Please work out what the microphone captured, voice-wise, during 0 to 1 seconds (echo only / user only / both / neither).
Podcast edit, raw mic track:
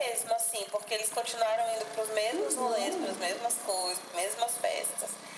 echo only